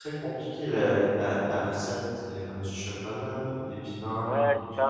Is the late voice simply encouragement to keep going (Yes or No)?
No